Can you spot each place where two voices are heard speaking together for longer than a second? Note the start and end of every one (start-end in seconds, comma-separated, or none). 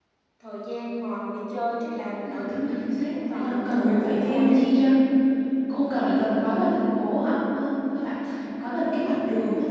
3.1-4.6